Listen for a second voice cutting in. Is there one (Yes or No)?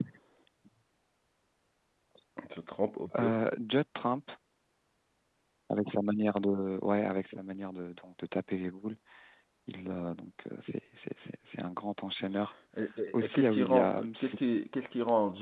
Yes